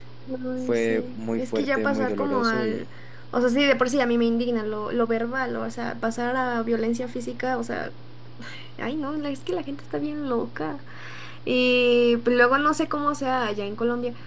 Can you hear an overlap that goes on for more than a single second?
Yes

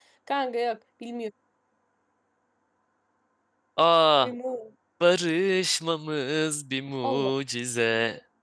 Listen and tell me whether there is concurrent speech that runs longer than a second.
No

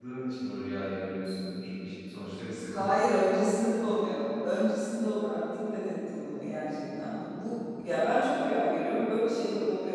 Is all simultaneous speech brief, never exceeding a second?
Yes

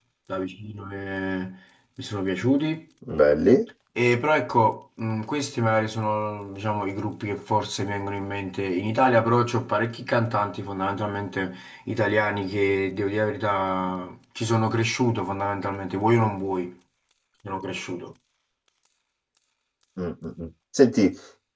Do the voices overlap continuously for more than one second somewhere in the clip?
No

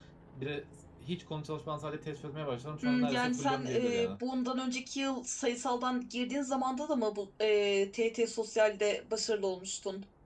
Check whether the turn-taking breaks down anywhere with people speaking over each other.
Yes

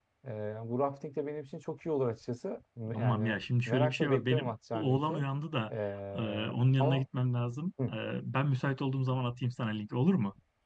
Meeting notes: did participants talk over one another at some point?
Yes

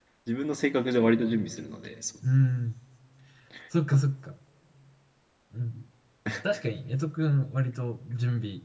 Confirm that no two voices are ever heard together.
Yes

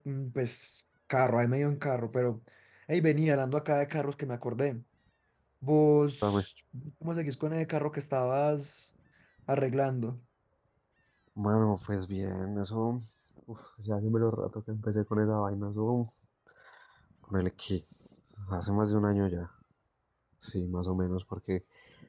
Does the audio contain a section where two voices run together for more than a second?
No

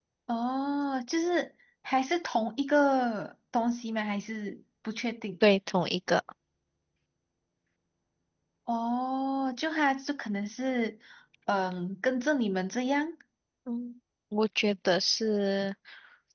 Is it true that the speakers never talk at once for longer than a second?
Yes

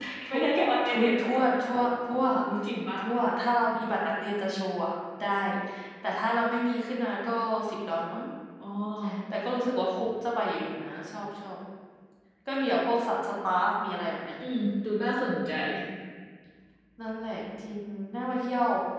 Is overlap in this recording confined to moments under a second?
Yes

